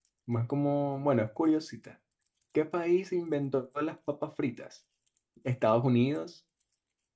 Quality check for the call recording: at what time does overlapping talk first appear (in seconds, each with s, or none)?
none